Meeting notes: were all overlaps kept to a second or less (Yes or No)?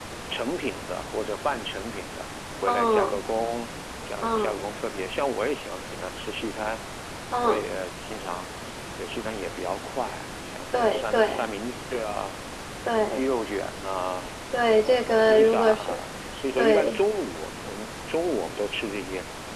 No